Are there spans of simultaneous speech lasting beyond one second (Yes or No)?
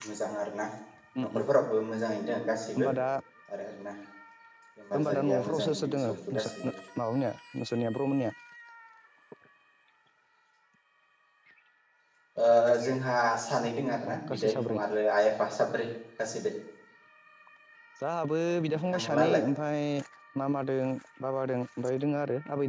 Yes